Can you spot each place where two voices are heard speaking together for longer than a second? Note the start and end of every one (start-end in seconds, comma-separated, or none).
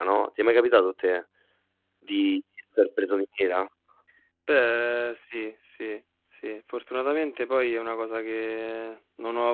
none